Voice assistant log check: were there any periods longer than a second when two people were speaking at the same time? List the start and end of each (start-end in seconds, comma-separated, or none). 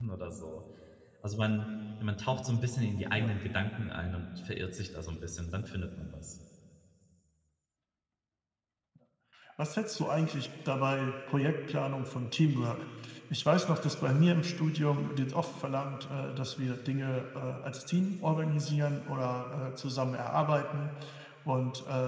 none